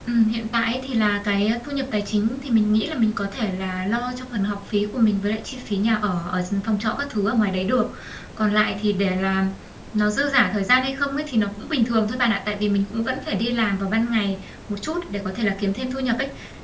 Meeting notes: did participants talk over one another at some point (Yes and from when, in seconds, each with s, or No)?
No